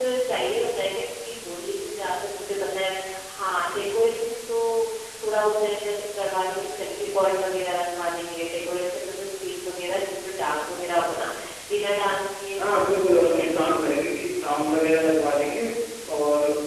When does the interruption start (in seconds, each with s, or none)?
12.6 s